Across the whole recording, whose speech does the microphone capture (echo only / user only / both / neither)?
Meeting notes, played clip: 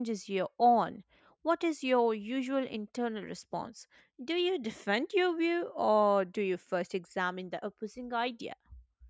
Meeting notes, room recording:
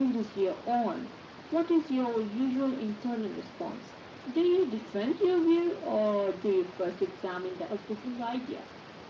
echo only